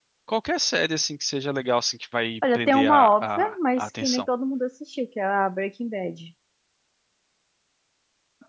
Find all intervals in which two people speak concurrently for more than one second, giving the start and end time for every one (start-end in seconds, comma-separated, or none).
2.5-4.3